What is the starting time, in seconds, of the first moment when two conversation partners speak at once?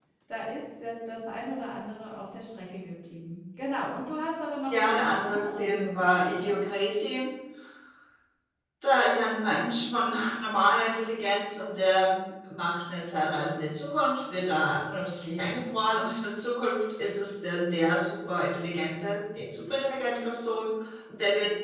4.7 s

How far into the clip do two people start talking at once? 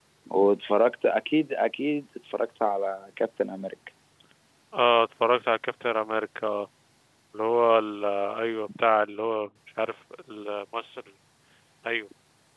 none

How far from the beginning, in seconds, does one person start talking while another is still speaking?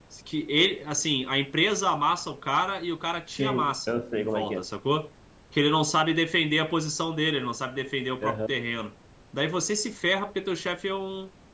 3.4 s

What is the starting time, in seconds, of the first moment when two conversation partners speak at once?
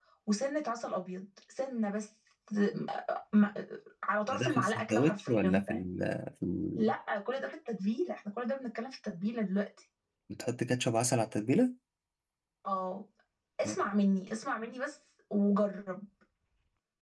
4.3 s

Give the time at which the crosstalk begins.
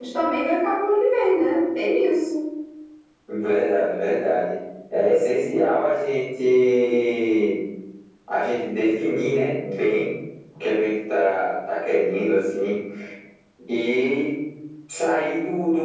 none

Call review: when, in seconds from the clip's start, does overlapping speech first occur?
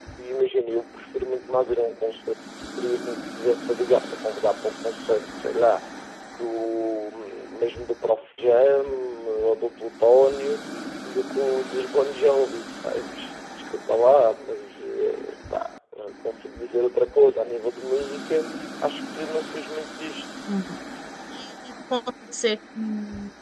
none

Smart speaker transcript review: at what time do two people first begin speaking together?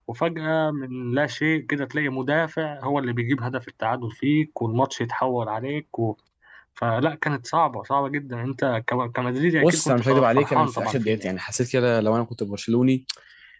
9.6 s

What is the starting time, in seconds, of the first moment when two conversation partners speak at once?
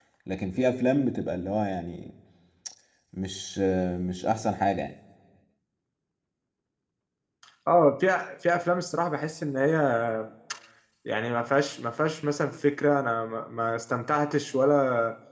none

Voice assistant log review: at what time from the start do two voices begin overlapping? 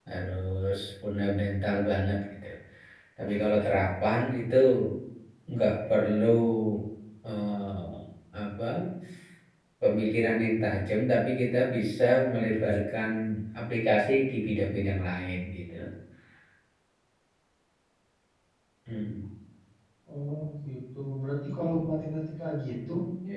none

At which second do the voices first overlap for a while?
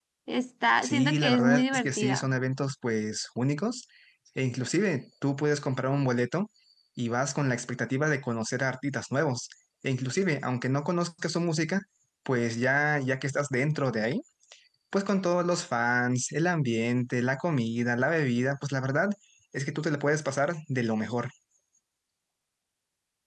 0.8 s

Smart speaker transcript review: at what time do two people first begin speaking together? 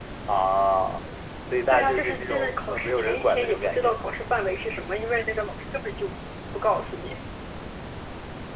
1.7 s

